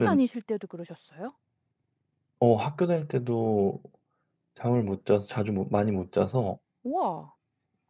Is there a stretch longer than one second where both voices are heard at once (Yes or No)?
No